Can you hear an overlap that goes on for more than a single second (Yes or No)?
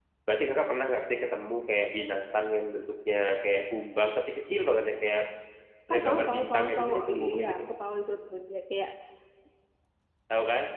Yes